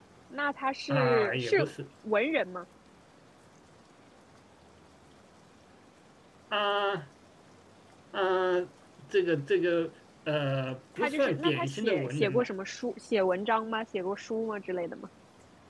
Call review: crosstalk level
present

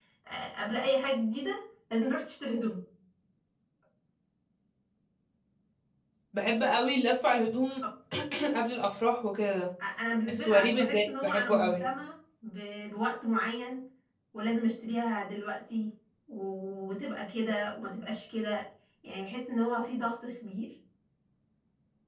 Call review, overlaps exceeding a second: present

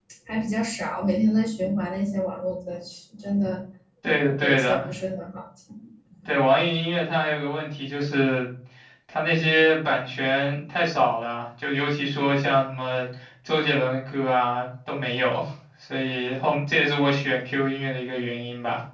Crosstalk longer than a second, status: none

